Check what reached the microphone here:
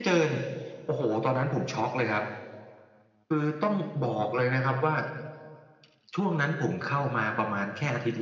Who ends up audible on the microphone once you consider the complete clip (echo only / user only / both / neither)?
echo only